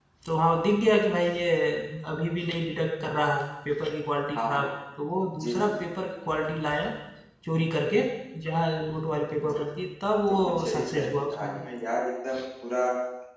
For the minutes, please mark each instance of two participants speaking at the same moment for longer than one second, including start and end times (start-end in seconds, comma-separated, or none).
10.3-11.7